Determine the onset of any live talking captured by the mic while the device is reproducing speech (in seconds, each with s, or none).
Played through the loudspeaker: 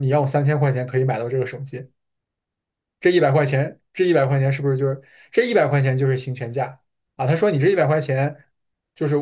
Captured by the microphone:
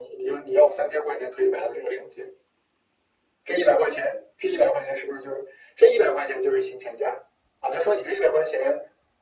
none